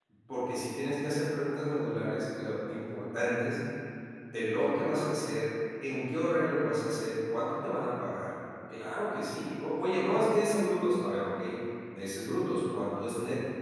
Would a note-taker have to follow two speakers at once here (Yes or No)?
No